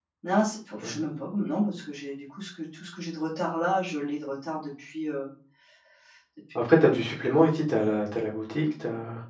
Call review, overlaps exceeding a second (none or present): none